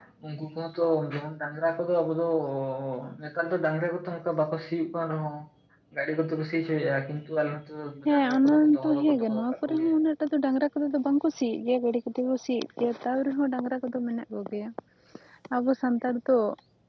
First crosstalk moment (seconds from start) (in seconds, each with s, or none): 8.1 s